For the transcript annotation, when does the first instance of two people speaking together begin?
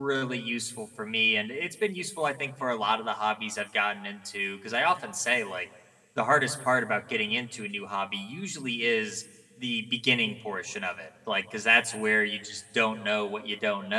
none

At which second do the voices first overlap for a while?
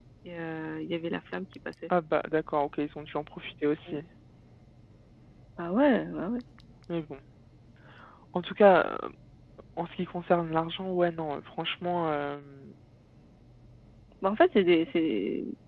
none

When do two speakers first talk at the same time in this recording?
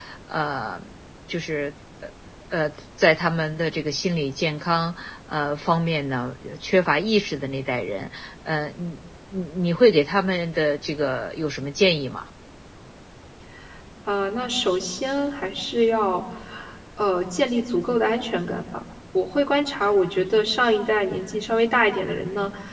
none

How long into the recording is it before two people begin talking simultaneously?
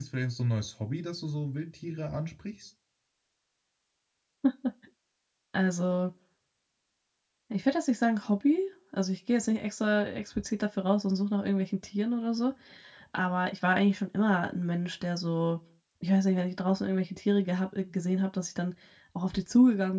none

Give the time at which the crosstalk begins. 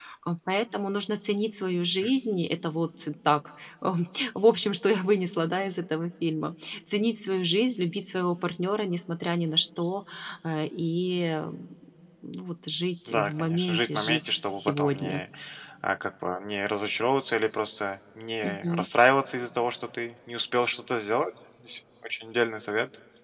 13.1 s

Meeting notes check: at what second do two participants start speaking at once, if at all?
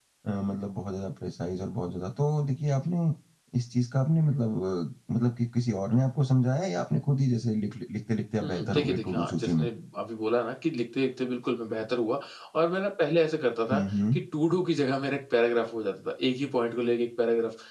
8.4 s

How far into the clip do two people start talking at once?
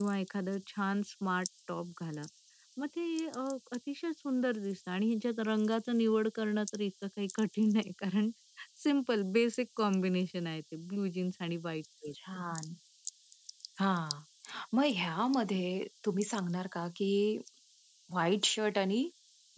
none

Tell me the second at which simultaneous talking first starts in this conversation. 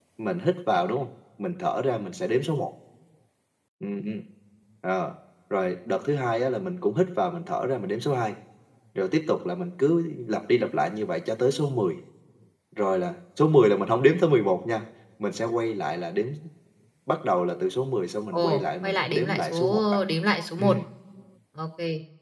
18.3 s

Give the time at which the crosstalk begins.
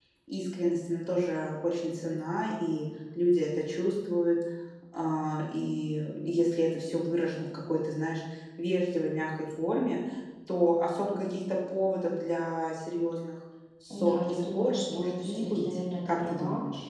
13.9 s

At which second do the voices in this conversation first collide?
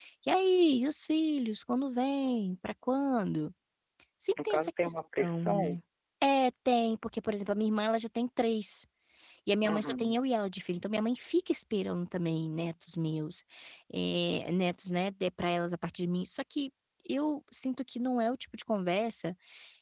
4.4 s

